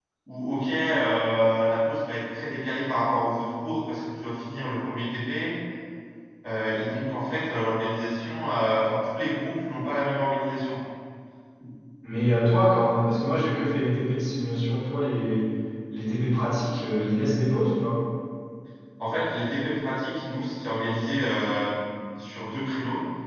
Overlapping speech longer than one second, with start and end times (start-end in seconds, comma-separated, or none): none